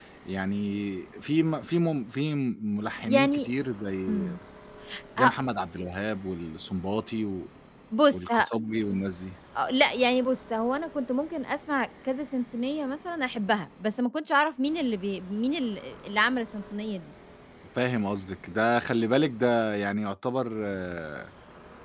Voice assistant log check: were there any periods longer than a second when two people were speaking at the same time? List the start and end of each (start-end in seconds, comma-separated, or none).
none